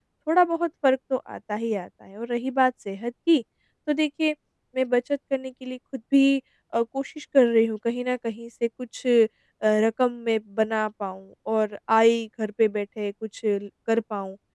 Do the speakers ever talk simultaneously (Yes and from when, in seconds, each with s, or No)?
No